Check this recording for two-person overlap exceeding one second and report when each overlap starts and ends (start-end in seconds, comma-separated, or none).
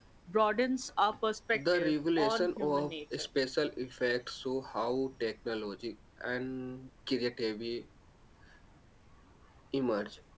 1.5-3.3